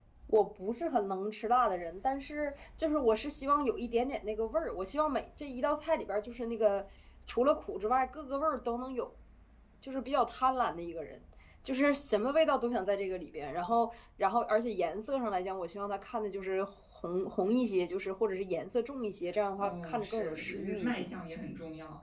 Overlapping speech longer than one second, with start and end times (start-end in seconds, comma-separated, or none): 19.6-21.0